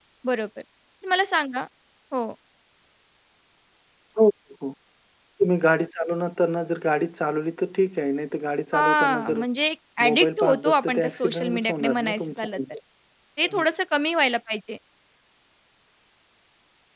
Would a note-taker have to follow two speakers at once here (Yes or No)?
Yes